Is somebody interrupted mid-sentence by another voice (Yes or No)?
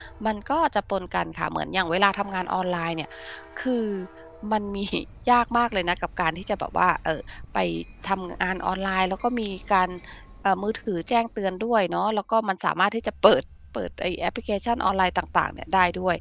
No